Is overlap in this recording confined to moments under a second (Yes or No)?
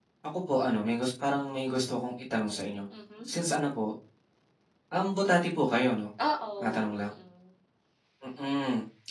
Yes